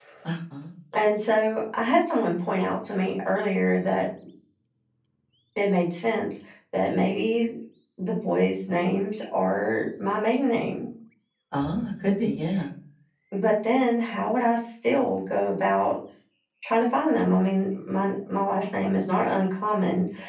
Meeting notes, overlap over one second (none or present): none